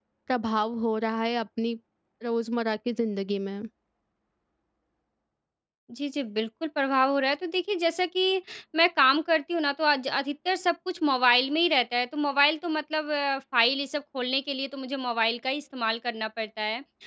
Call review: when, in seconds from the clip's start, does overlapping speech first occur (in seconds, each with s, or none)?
none